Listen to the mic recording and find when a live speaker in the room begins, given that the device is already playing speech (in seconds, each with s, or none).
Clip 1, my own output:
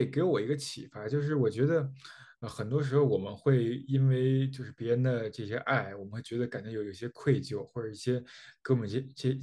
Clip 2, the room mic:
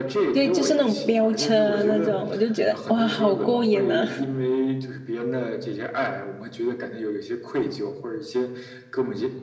0.3 s